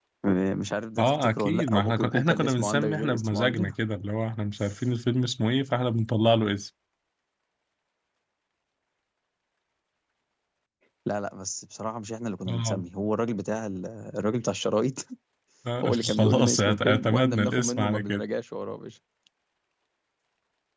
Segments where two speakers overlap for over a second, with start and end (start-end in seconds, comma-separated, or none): 1.0-3.7, 15.8-18.2